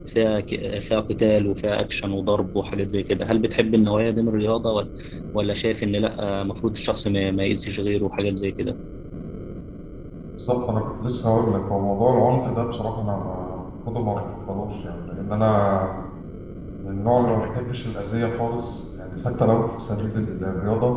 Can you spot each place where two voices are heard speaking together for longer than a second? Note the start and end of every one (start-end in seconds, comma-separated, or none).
none